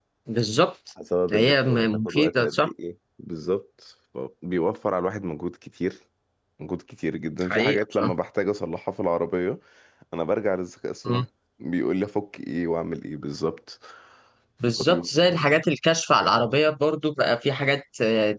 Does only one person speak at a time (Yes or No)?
No